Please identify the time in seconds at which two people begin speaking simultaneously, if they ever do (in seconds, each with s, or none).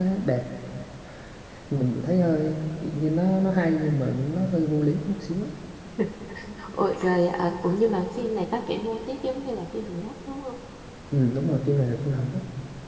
none